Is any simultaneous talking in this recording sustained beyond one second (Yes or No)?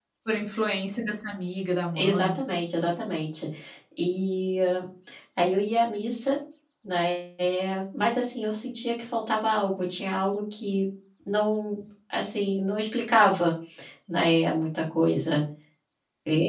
No